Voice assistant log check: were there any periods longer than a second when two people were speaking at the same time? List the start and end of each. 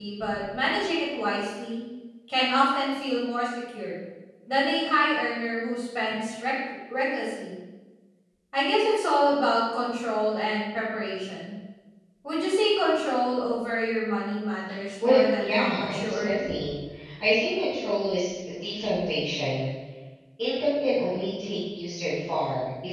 15.0-16.5

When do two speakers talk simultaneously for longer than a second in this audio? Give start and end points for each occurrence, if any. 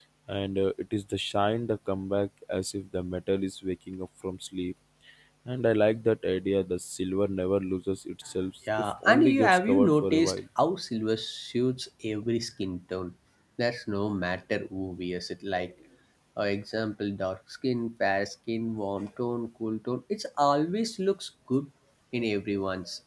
8.8-10.4

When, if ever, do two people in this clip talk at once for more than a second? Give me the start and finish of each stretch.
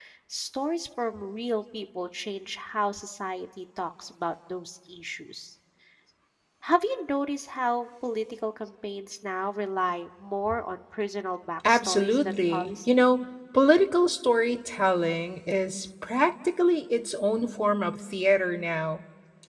11.7-13.0

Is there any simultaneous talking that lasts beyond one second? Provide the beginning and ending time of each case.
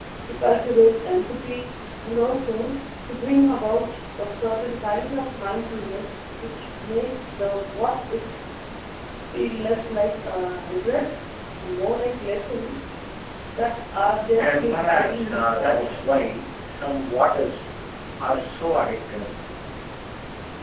14.4-16.0

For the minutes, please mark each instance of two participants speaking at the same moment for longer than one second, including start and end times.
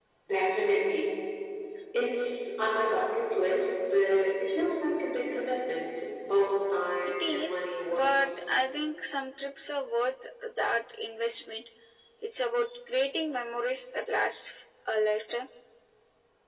7.2-8.4

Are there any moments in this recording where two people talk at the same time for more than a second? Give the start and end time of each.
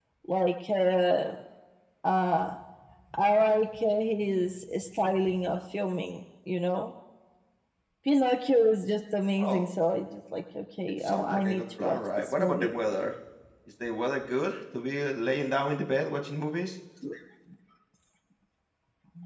11.1-12.7

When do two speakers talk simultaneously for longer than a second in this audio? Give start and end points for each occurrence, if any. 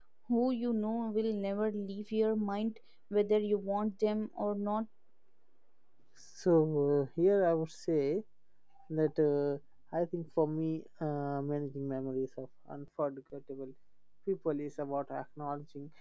none

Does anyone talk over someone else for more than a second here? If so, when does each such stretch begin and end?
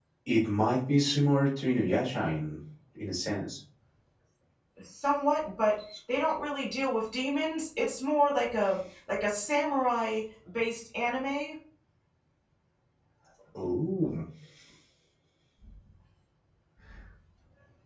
none

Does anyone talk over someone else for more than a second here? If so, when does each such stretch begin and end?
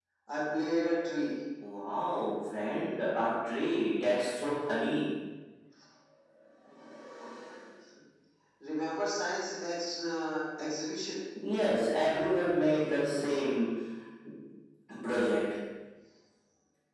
none

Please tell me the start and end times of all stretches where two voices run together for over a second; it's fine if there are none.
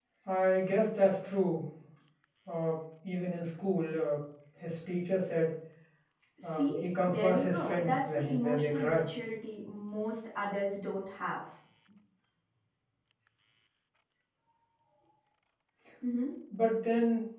6.4-9.1

